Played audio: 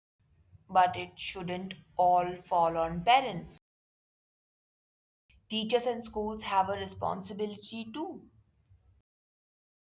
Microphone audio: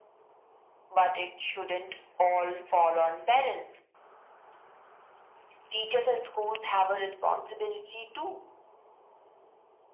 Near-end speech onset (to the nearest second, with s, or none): none